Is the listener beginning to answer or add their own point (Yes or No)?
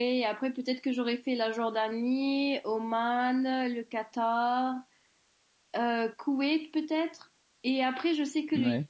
No